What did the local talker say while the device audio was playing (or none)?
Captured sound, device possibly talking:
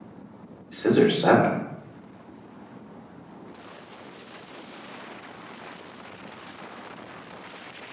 Scissor Seven.